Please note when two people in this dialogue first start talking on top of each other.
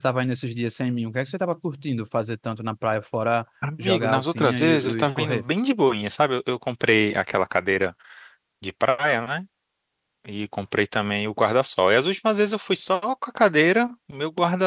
3.6 s

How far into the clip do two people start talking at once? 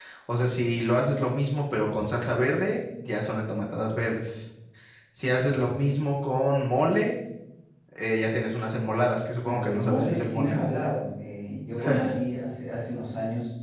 9.4 s

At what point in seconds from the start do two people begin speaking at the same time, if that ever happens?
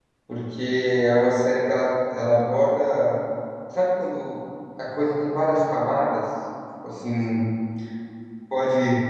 none

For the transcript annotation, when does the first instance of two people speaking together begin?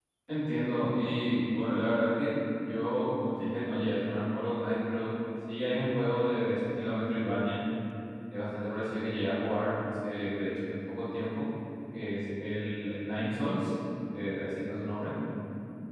none

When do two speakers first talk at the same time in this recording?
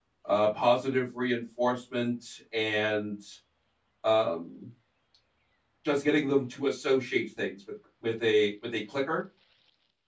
none

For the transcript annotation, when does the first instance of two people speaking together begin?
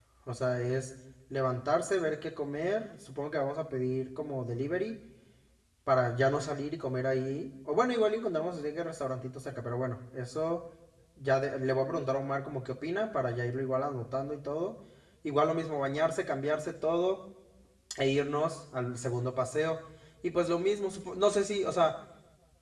none

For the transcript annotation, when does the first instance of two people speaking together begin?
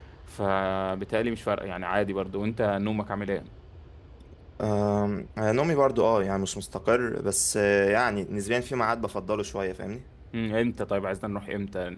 none

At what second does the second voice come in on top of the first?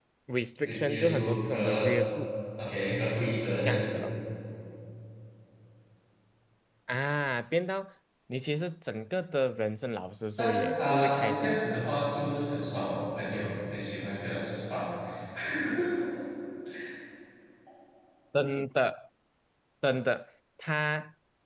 0.7 s

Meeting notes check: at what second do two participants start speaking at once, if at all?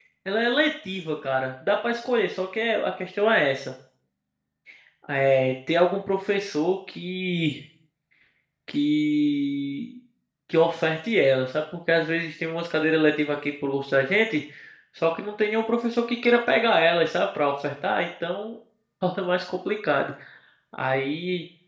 none

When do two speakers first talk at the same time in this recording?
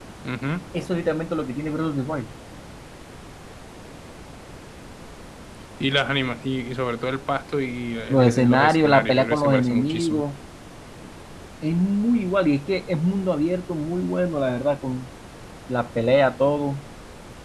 8.1 s

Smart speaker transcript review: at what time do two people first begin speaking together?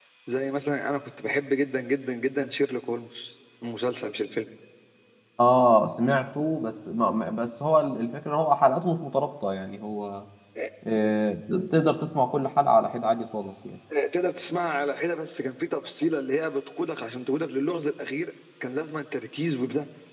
none

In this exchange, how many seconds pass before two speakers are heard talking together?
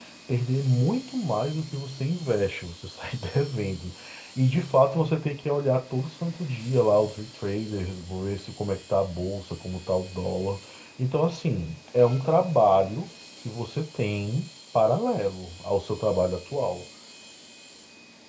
none

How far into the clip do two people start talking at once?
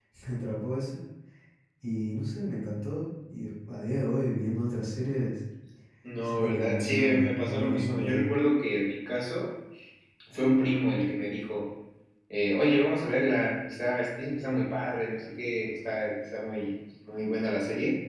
6.2 s

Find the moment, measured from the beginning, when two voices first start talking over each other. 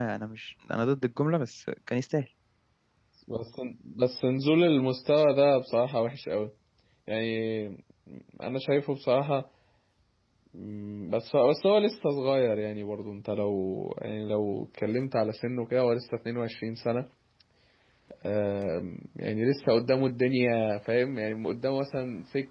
none

